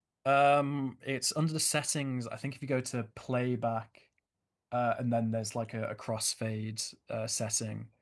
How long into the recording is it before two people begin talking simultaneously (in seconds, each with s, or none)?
none